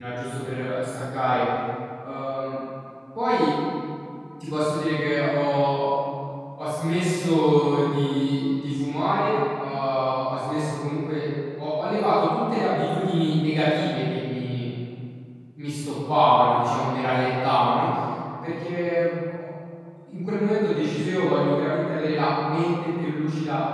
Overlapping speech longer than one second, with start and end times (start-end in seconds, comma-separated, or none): none